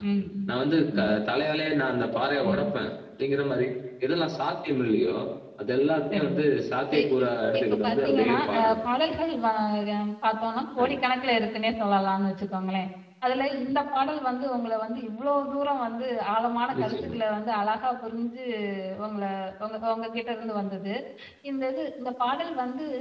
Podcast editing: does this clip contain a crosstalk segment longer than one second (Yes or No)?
Yes